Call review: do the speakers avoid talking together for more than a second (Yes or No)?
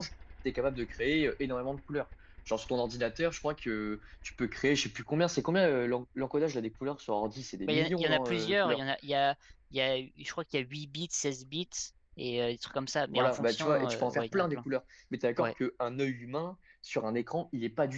No